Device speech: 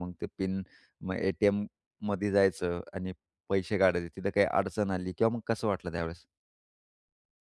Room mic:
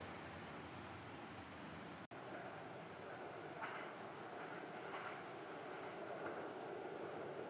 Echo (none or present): none